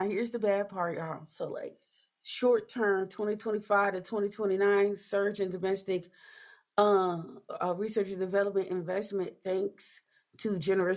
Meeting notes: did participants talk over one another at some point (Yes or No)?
No